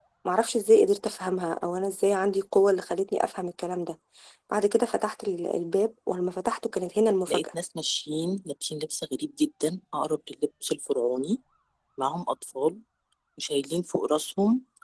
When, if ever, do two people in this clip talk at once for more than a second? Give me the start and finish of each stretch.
none

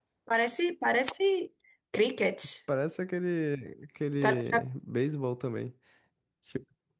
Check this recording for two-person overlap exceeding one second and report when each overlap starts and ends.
none

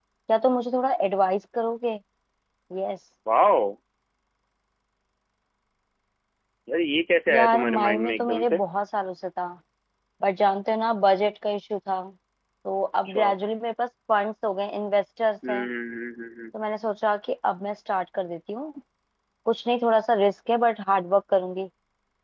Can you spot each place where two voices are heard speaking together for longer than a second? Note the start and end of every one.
7.3-8.6

